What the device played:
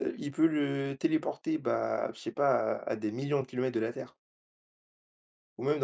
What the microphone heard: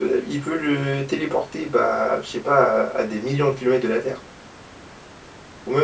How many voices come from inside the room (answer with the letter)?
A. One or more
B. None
B